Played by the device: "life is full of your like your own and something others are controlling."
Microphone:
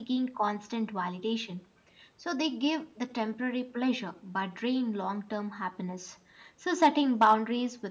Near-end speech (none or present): present